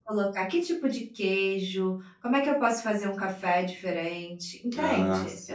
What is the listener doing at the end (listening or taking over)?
listening